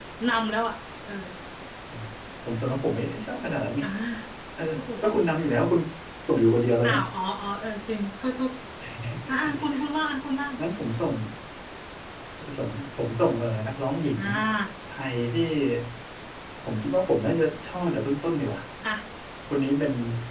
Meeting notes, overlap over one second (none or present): none